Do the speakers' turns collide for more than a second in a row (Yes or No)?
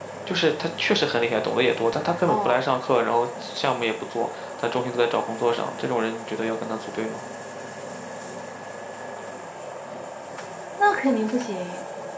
No